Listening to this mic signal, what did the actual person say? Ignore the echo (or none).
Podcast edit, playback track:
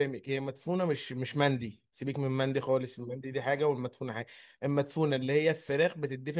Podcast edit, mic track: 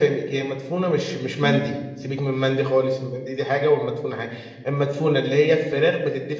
امم